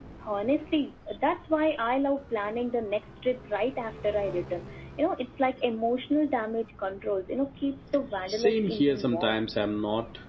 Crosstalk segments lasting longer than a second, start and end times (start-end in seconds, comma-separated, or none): 8.3-9.5